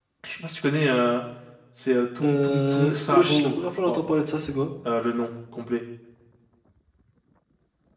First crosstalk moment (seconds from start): 2.2 s

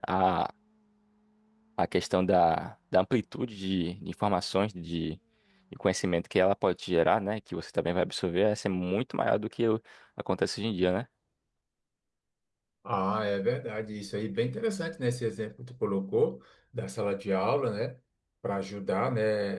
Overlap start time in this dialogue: none

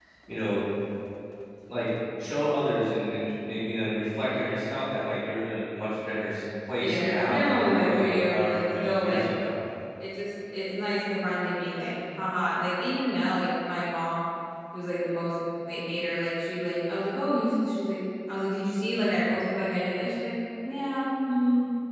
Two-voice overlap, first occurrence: 6.8 s

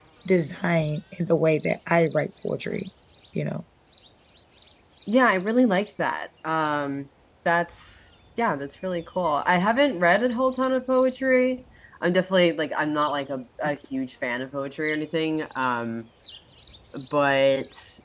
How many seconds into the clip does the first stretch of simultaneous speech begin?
none

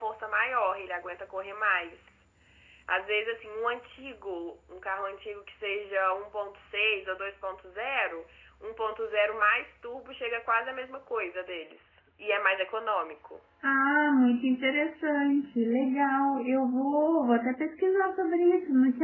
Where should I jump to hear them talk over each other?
none

